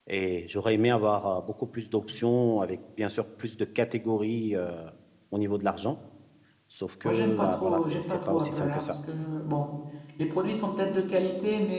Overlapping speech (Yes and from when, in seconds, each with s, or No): Yes, from 7.0 s